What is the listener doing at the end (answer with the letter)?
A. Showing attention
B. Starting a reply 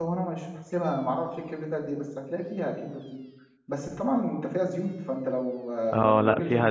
B